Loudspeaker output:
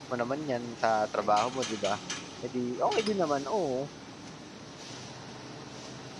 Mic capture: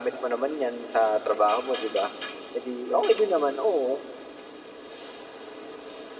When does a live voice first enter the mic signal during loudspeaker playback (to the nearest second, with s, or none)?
none